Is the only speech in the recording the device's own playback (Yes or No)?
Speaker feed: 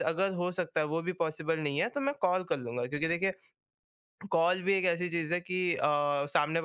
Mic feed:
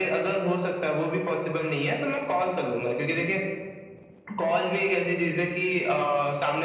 Yes